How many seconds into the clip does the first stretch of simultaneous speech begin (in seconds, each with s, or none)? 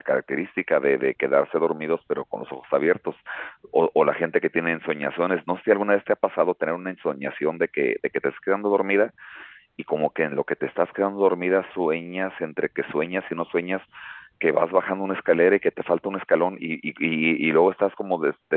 none